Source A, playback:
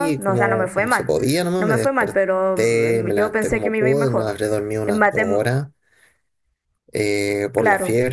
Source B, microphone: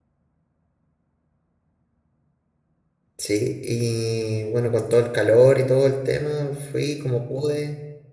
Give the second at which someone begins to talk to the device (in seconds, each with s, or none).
3.2 s